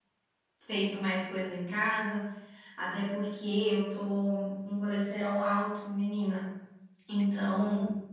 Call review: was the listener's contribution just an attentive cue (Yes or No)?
Yes